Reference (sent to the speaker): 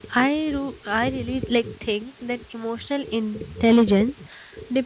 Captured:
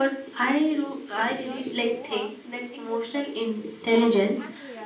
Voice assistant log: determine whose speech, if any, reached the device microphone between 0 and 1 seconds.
echo only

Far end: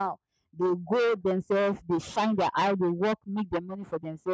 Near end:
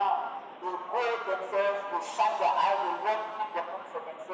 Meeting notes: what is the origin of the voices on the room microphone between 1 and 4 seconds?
echo only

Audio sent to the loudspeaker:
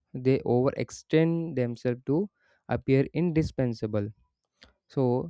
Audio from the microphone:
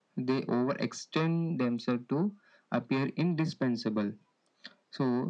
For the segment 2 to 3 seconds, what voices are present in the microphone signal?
echo only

